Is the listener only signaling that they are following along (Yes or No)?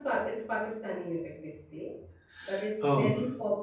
Yes